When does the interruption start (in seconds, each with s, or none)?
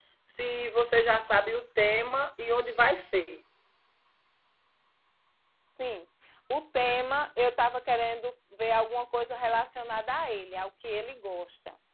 none